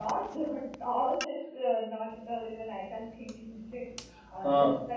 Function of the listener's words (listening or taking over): listening